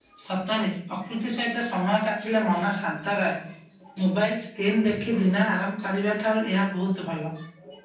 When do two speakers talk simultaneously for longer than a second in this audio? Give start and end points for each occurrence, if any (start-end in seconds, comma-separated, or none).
none